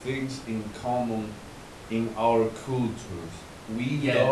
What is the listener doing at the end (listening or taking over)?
listening